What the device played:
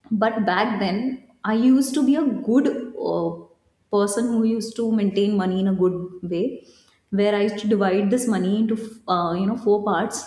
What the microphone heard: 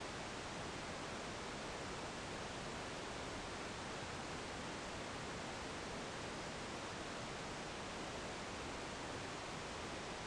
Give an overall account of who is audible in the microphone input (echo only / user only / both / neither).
neither